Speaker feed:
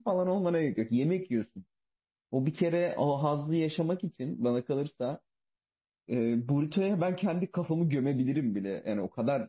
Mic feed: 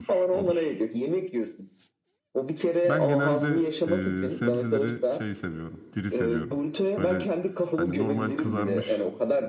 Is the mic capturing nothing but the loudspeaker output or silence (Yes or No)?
No